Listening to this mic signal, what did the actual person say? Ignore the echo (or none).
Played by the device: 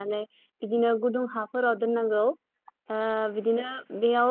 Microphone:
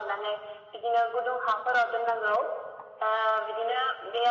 none